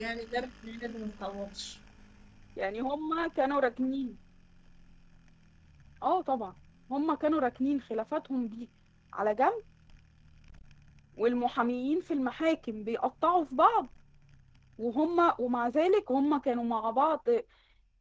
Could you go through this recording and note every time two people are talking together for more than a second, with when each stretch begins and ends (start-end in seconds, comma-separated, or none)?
none